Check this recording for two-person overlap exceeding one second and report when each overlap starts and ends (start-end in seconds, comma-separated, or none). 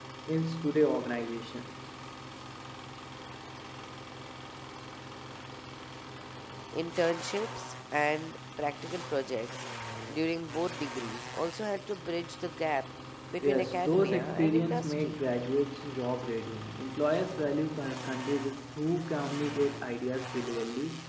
13.4-15.2